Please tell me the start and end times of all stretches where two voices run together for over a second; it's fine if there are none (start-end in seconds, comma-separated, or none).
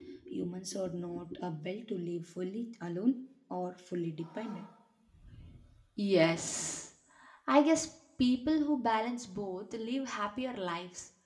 none